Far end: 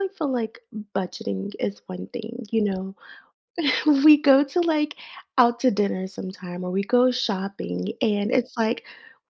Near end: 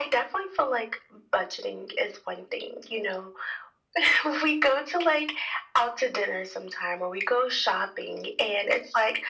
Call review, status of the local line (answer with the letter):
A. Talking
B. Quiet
B